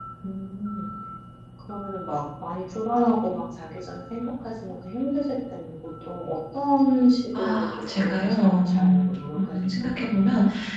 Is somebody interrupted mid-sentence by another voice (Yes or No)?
Yes